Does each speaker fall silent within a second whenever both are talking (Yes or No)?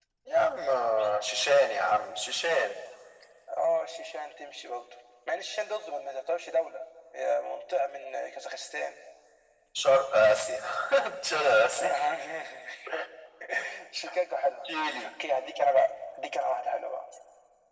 Yes